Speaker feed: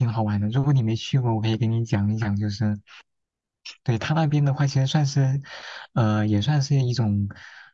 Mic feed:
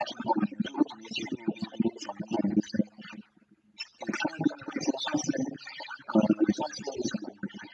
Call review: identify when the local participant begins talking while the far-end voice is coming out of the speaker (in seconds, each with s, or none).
none